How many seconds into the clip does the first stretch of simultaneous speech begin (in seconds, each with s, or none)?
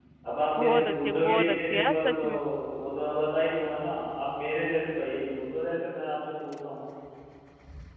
0.6 s